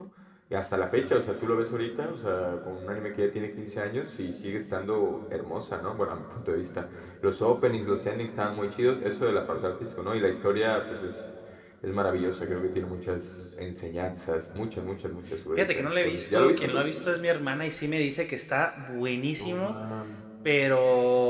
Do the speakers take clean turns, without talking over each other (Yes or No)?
No